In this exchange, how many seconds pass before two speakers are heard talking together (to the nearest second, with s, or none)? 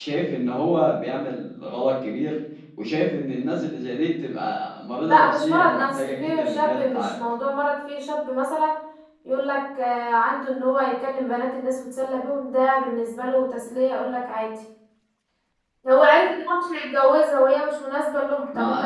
5 s